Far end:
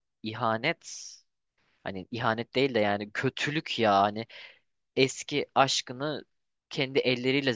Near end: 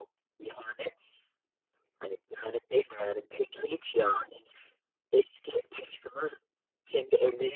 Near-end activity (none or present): none